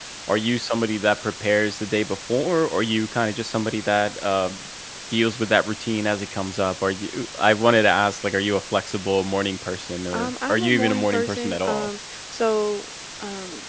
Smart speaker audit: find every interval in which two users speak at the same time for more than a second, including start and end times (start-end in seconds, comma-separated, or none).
10.1-11.9